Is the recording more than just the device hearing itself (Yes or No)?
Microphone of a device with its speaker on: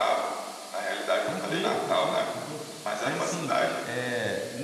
Yes